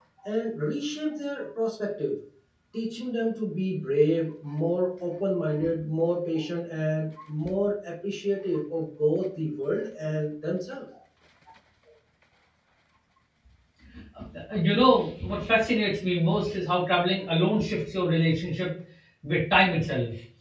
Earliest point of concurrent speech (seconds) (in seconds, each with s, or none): none